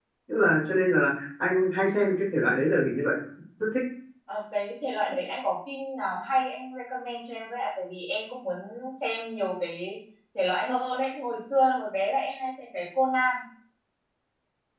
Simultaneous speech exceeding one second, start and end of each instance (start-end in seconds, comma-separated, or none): none